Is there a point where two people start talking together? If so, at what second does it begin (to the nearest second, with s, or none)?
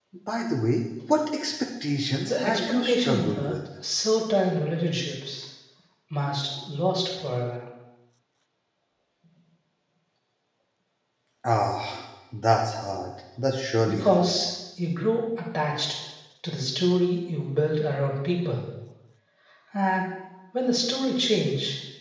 2 s